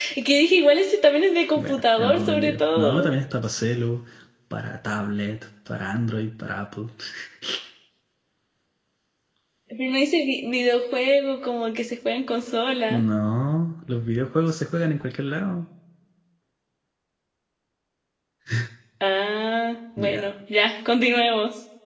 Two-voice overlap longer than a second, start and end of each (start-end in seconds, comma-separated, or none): 1.6-3.1